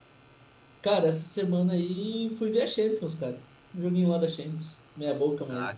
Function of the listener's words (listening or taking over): taking over